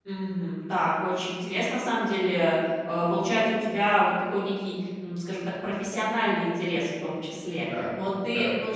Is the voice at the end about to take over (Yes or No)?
No